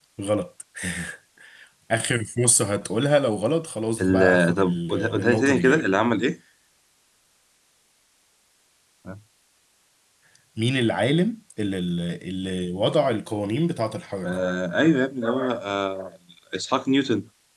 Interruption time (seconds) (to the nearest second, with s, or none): 4 s